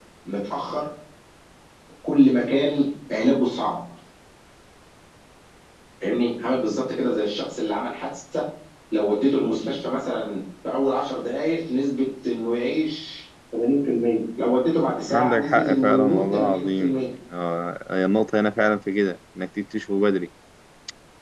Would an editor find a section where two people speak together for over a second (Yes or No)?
Yes